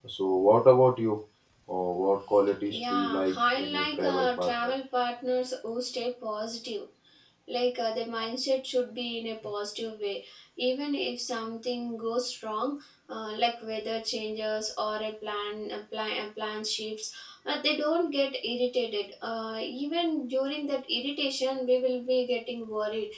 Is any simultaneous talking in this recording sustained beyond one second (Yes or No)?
Yes